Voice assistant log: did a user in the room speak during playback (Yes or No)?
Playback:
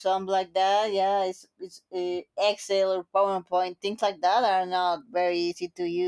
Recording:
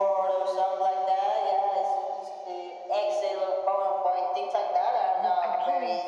Yes